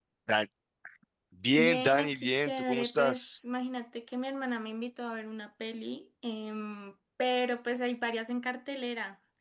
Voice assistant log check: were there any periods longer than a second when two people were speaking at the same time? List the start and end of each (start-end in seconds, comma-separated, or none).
1.6-3.3